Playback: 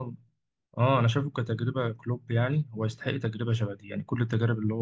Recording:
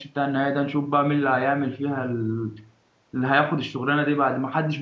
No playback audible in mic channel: Yes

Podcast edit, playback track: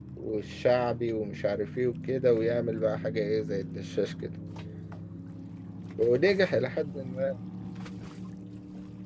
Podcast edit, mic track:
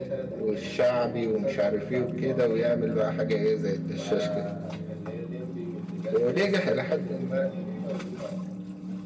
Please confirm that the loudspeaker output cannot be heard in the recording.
No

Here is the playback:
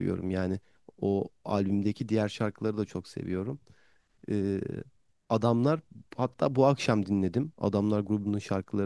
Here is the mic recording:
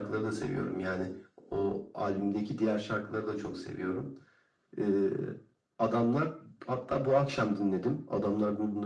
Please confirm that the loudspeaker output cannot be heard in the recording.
No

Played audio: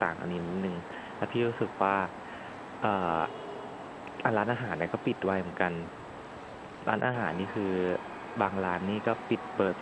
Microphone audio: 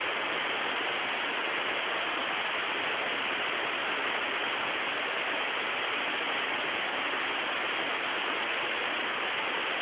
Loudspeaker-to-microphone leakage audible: No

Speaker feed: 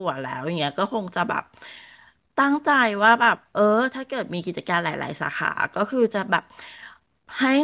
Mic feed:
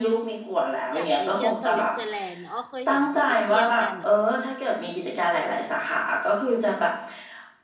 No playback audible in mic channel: No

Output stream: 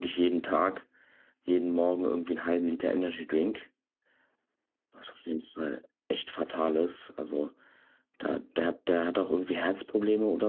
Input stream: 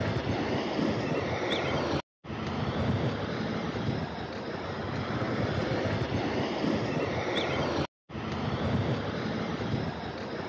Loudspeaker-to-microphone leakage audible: No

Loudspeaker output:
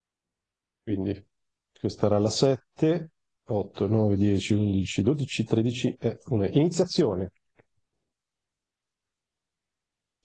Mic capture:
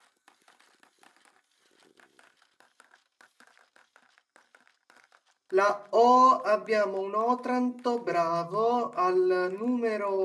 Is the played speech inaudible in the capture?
Yes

